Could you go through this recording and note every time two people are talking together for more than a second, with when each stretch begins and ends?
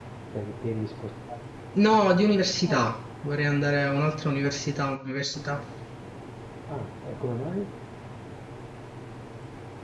none

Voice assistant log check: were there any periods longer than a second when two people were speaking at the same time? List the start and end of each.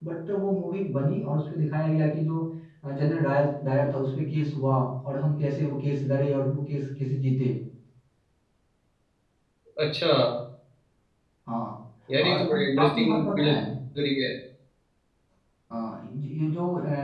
12.2-13.6

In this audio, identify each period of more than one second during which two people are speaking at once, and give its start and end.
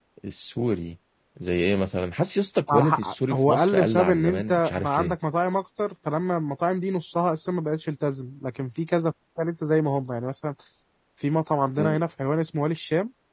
2.7-5.2

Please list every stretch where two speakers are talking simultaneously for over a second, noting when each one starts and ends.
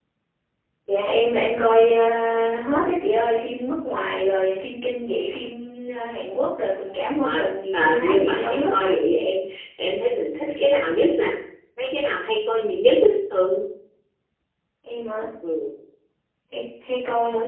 7.2-8.9

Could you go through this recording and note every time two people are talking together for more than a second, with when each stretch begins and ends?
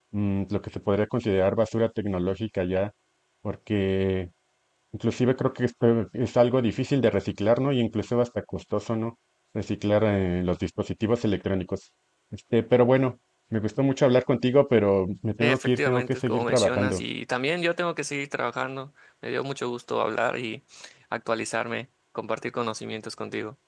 15.4-17.0

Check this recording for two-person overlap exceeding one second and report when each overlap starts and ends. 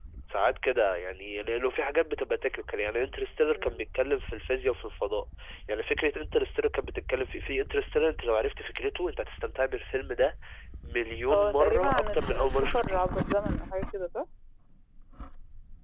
11.3-13.0

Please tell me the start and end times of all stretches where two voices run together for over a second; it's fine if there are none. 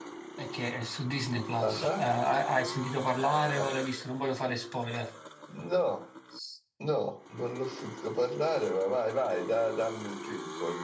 none

